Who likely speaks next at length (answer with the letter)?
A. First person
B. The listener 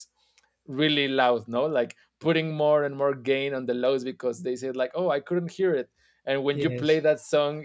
A